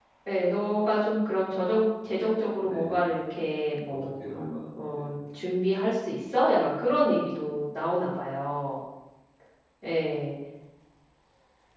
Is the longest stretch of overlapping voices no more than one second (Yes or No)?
Yes